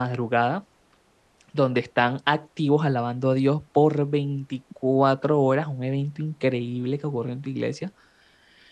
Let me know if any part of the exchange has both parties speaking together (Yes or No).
No